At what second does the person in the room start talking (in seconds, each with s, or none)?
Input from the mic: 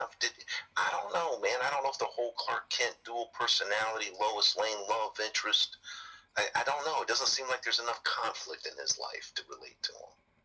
none